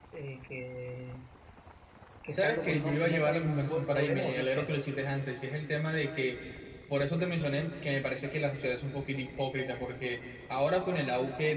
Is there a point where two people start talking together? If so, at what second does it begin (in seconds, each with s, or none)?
2.3 s